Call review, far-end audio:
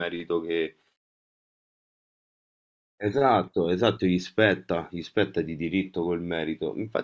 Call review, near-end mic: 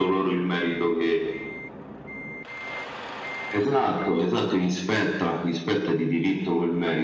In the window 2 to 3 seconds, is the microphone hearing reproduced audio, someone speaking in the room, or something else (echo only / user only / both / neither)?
neither